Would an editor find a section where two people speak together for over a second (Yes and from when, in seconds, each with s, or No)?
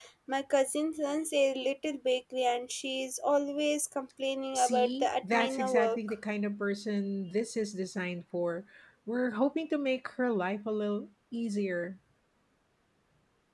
Yes, from 4.5 s